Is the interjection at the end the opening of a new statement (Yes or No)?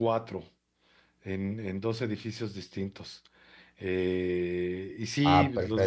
No